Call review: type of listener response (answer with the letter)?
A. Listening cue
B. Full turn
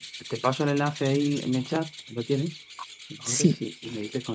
A